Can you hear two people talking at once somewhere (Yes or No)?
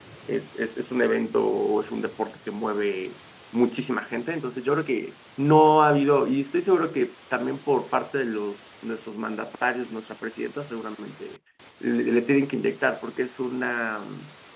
No